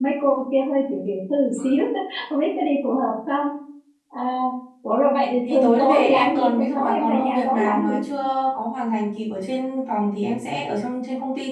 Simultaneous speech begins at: 5.5 s

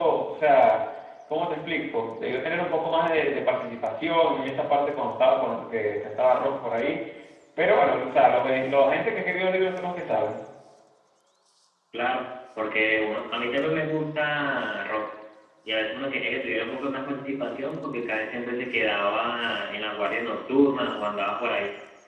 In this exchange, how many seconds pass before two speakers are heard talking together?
none

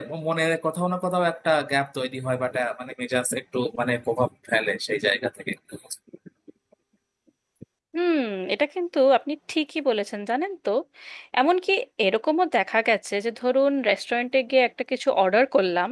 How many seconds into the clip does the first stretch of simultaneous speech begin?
none

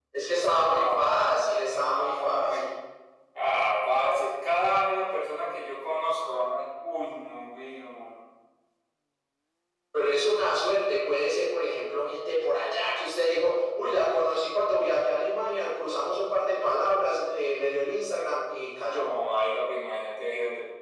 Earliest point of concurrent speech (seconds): 0.6 s

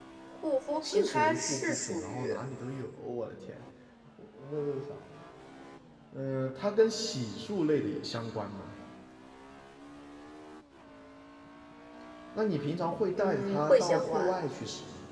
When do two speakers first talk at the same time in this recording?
0.8 s

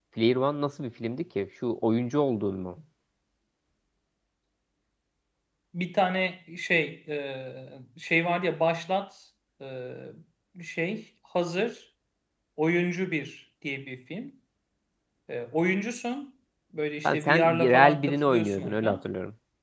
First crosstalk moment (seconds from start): 17.0 s

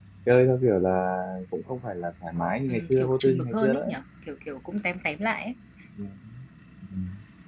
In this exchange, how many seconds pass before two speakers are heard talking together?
2.7 s

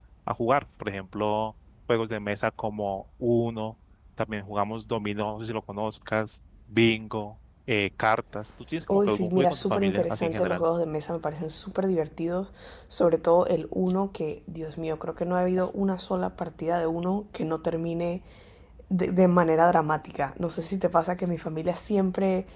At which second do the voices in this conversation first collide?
8.9 s

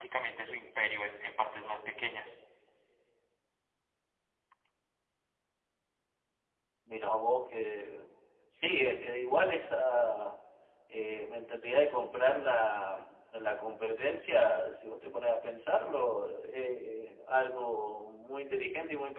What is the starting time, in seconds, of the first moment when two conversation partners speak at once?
none

